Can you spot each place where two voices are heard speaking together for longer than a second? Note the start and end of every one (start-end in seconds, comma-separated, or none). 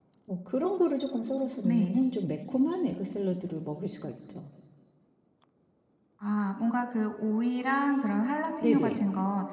none